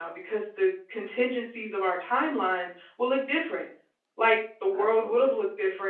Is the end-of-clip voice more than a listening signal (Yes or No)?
No